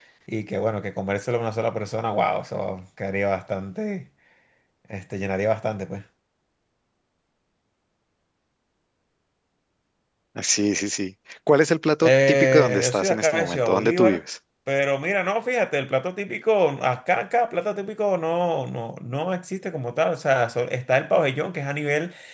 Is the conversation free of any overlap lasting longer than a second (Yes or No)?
No